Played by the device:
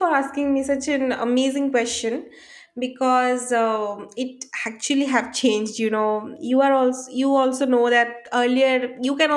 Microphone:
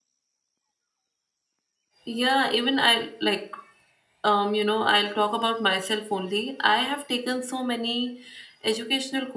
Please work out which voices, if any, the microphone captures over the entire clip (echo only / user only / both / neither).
user only